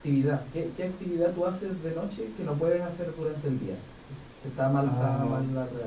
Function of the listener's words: listening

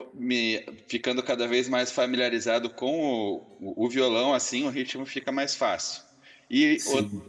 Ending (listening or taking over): listening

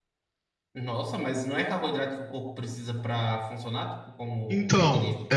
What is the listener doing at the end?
taking over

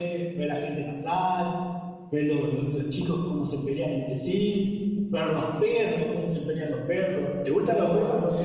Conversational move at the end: taking over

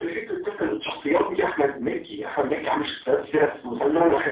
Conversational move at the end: taking over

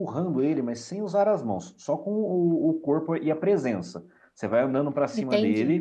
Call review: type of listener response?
listening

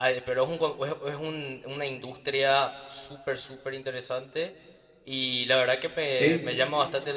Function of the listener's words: listening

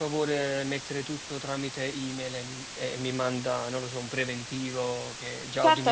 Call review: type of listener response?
taking over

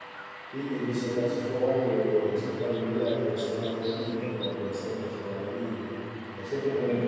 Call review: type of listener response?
listening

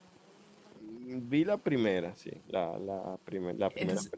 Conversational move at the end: taking over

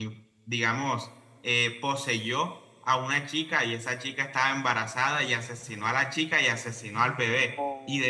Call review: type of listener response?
listening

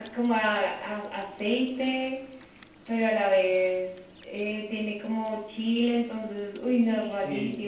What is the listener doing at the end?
taking over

